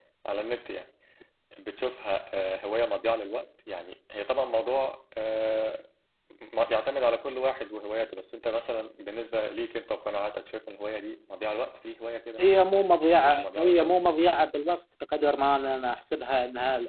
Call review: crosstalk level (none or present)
present